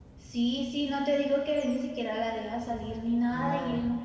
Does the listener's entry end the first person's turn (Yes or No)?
No